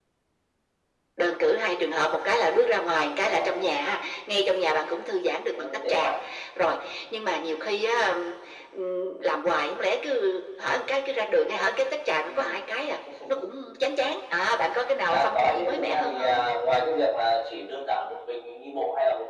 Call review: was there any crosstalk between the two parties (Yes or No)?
Yes